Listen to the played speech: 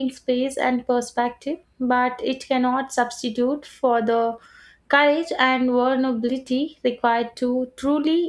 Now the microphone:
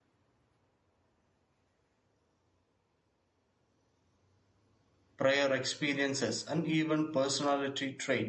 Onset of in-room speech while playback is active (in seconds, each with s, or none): 5.2 s